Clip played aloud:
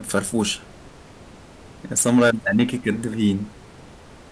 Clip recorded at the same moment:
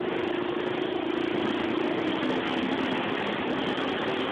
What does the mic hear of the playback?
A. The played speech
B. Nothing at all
B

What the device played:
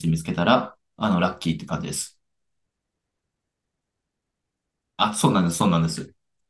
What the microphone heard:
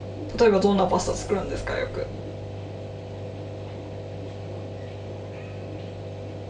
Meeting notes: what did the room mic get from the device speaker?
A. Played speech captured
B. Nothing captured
B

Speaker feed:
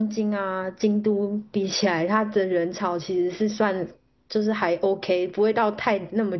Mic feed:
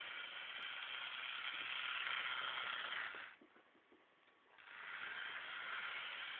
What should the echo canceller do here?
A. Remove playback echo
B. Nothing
B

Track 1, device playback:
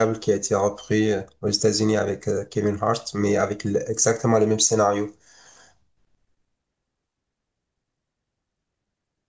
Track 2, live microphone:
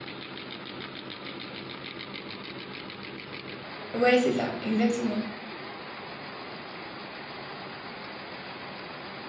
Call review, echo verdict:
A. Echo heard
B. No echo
B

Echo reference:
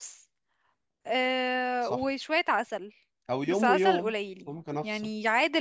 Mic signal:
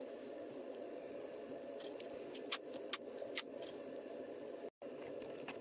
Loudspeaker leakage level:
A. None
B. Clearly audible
A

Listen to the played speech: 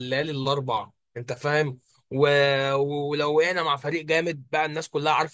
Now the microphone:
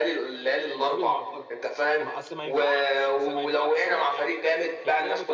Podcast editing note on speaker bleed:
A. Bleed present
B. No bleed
A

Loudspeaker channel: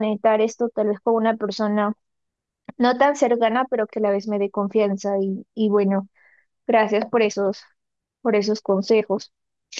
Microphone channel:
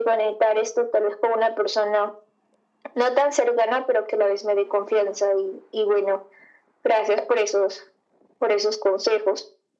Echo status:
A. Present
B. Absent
A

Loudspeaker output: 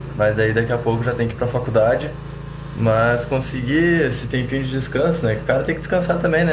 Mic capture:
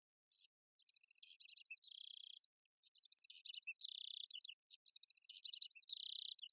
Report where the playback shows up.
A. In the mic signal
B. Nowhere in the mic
B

